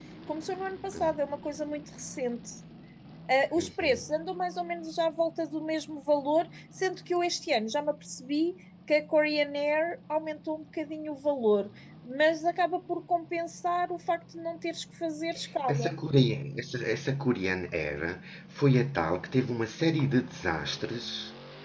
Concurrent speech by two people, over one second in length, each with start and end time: none

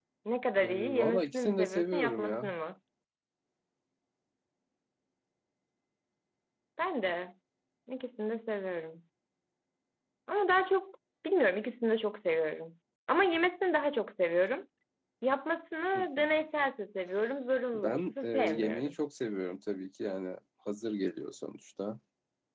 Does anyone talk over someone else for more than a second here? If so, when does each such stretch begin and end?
0.6-2.5, 17.7-18.9

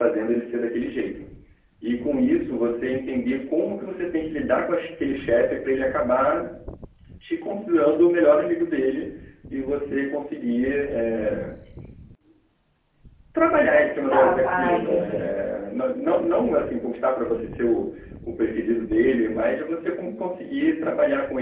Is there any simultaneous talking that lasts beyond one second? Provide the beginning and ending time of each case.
13.9-15.3

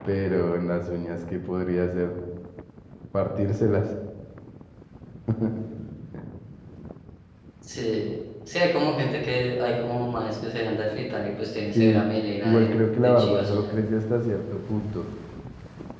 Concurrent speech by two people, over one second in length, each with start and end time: 12.4-13.8

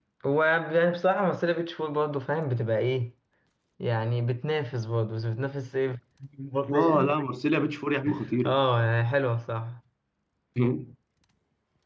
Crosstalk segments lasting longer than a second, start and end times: none

